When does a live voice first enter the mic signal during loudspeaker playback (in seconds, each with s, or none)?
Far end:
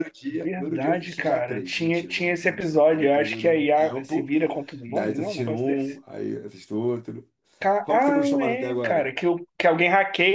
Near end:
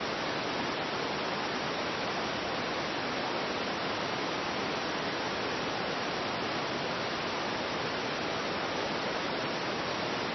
none